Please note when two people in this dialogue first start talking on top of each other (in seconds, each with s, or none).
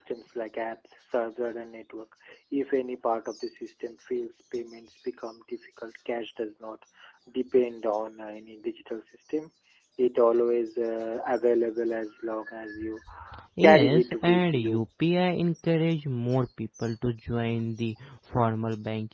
13.6 s